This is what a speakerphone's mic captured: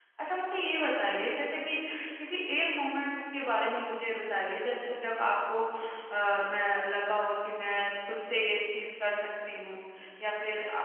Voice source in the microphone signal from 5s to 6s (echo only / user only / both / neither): user only